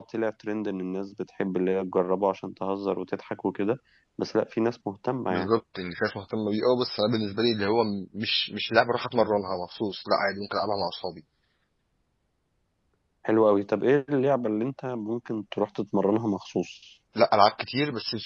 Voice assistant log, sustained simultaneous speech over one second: none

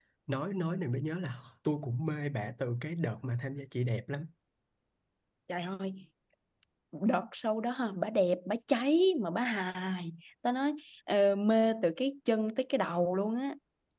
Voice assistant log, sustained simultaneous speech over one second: none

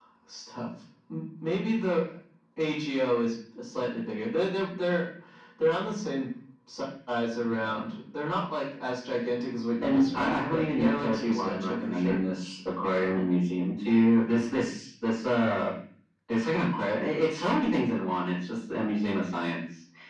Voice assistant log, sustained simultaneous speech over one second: present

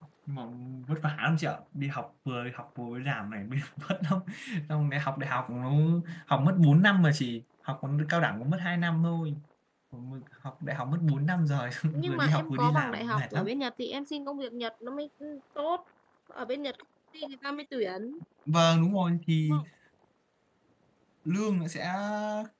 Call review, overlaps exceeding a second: present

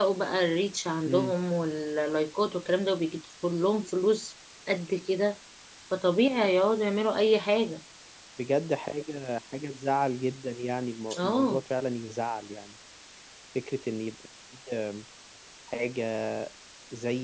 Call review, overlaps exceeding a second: none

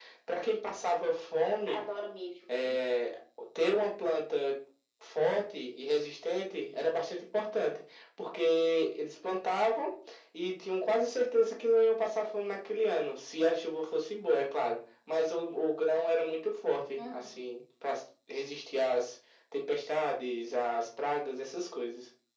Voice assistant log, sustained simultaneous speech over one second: none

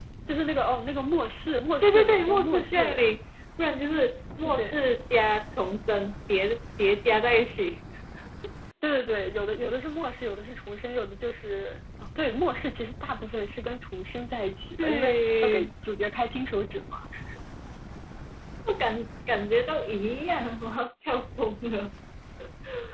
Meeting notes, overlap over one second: present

